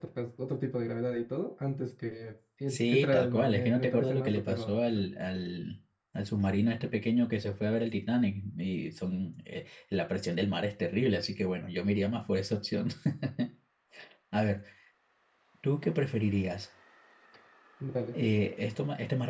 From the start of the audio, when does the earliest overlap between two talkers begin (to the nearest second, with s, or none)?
3 s